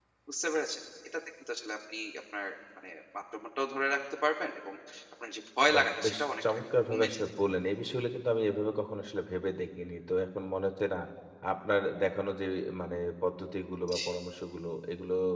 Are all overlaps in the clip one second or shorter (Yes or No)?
No